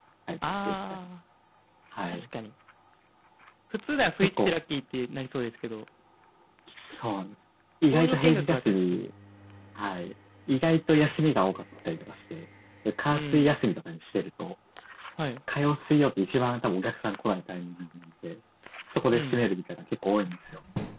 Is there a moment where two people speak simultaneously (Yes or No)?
Yes